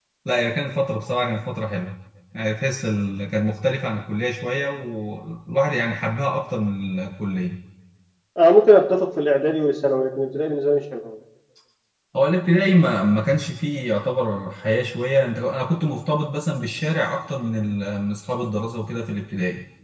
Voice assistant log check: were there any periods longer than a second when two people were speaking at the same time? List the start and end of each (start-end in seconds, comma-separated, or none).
none